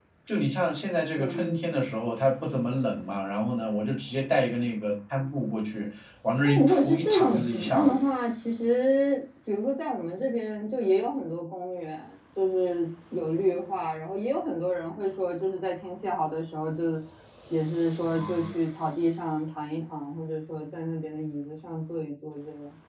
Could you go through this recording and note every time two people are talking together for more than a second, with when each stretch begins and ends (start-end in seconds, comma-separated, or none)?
6.4-8.0